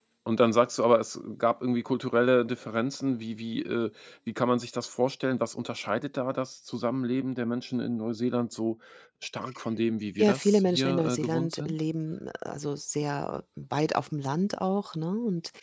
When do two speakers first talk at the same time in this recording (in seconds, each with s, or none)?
10.2 s